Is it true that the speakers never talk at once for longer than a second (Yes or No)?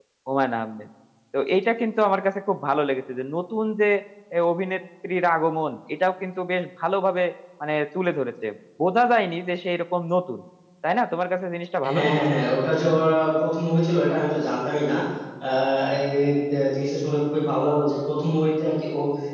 Yes